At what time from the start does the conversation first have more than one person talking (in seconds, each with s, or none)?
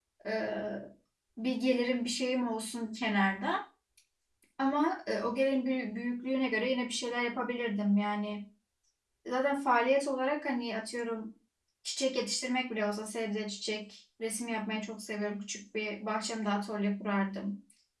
none